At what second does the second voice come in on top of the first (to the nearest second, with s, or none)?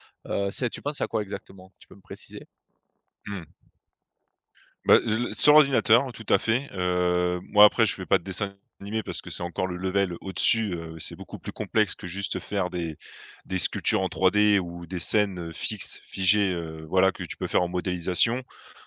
none